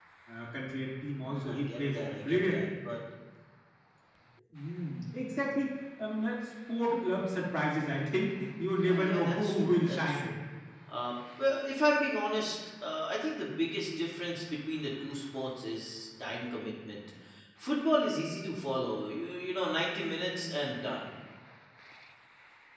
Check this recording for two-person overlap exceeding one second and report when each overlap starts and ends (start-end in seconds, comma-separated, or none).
1.2-2.6, 8.8-10.3